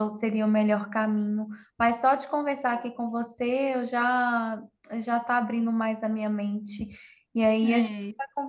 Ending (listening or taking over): listening